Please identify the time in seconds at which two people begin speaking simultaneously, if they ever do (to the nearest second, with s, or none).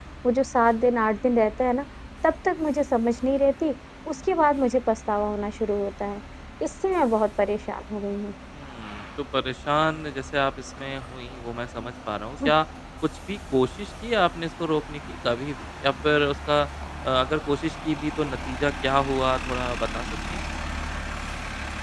none